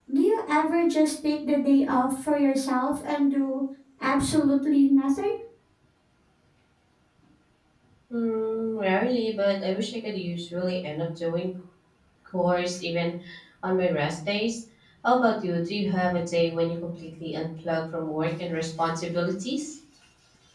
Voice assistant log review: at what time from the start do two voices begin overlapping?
none

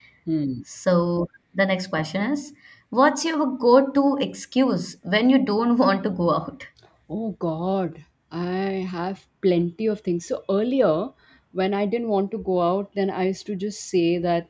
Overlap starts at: none

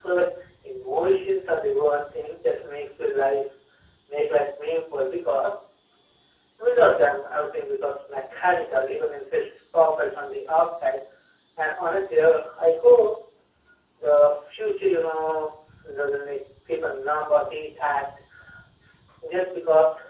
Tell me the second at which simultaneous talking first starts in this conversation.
none

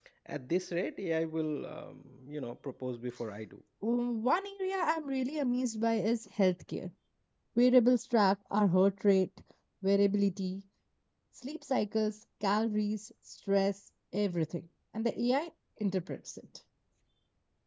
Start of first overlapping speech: none

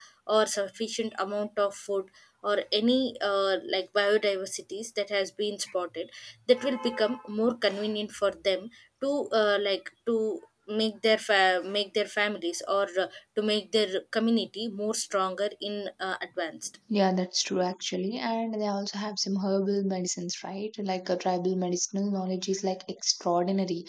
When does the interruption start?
none

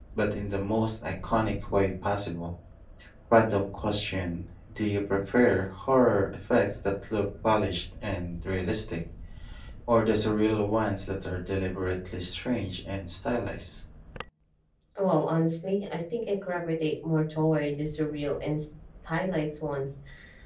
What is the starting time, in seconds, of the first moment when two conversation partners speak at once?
none

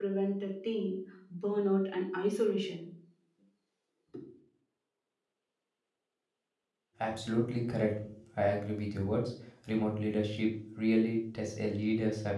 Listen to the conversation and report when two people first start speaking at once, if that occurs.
none

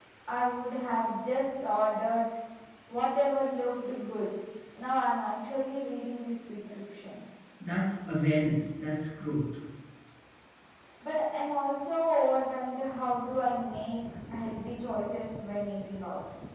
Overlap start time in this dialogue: none

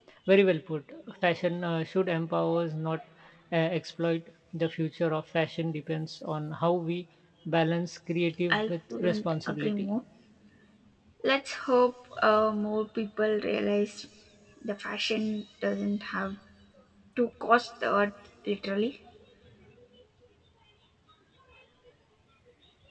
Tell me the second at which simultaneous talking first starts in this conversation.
8.5 s

